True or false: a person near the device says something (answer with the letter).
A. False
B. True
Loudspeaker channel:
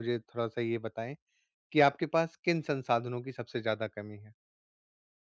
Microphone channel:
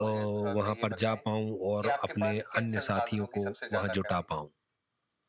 B